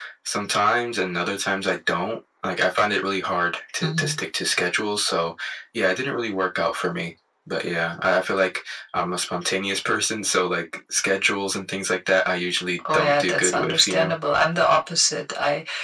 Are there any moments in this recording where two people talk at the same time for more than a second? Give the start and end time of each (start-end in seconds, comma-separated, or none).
12.9-14.2